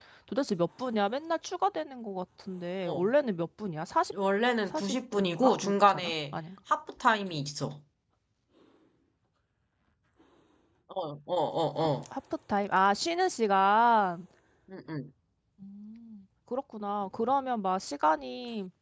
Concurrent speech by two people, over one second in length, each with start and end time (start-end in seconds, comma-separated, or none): 4.7-6.3